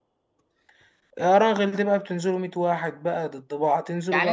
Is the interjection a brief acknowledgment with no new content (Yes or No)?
No